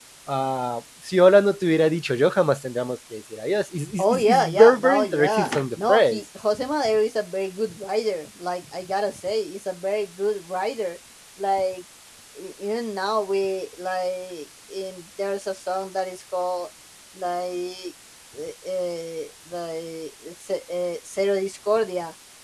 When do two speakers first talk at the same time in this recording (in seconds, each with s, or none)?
4.0 s